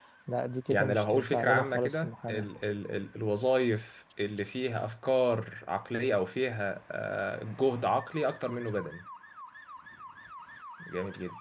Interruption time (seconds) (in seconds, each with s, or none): 0.7 s